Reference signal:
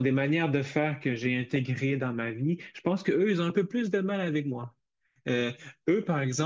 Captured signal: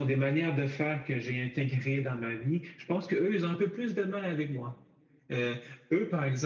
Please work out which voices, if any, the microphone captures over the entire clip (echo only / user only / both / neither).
echo only